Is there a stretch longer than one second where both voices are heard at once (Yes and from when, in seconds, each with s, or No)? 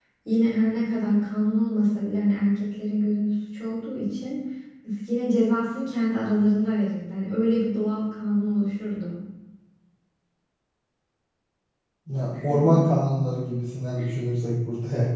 No